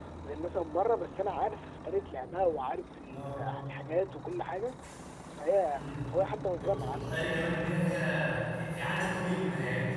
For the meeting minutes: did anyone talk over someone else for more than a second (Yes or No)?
No